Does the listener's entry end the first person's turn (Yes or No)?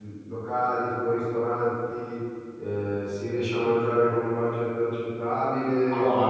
Yes